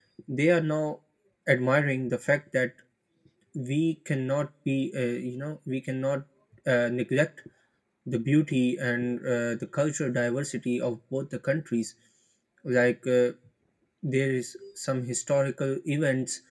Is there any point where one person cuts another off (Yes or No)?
No